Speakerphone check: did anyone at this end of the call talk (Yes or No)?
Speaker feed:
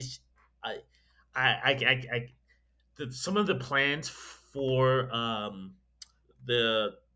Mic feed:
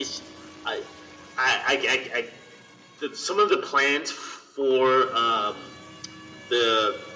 No